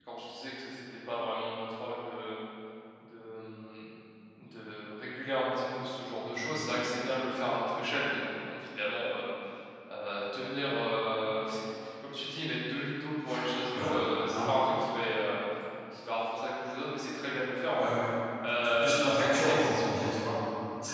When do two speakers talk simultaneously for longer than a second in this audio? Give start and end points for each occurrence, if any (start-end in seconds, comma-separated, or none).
18.6-19.9